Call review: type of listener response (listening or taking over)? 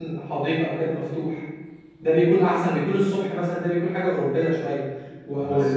listening